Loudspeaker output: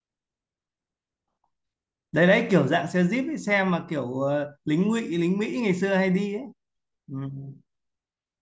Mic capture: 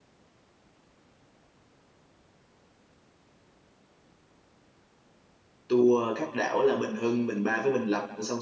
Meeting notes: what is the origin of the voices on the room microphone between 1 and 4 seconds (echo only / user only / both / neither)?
neither